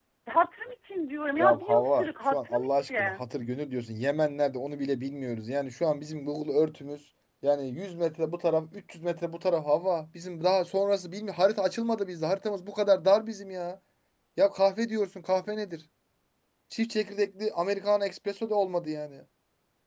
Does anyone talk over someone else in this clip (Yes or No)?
Yes